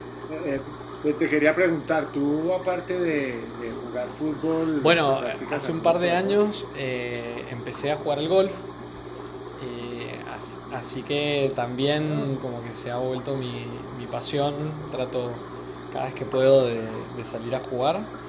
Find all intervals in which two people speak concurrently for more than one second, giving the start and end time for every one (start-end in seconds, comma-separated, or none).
4.8-6.5